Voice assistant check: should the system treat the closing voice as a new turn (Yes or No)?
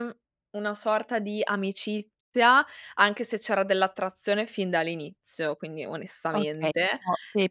Yes